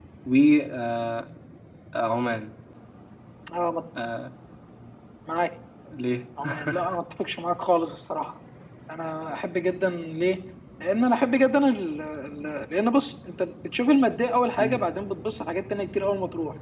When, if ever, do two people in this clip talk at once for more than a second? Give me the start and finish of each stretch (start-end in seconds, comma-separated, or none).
none